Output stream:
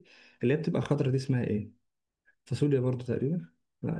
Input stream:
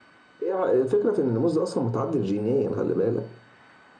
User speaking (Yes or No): Yes